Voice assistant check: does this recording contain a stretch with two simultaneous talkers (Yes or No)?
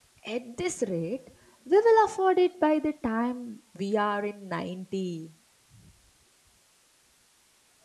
No